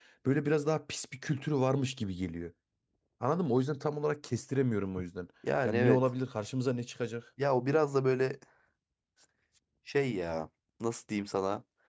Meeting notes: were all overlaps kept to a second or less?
Yes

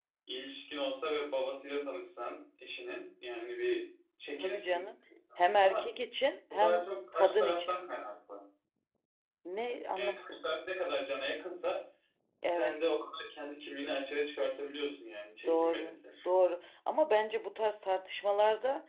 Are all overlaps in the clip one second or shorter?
No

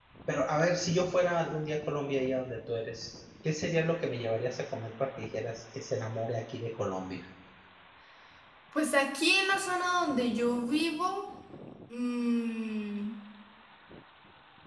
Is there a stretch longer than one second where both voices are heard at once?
No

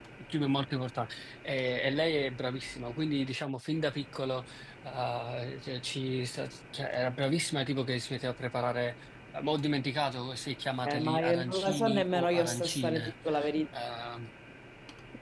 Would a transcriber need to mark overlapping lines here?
Yes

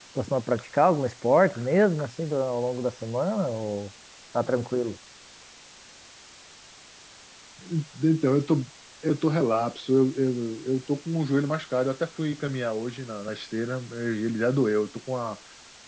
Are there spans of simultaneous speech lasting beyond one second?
No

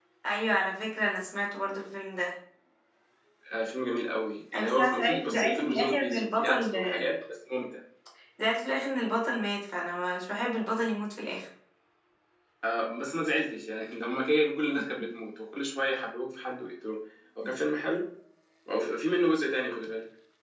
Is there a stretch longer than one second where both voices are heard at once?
Yes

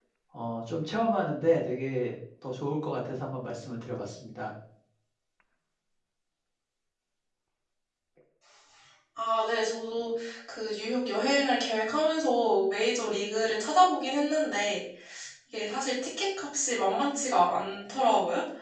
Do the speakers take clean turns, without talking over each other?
Yes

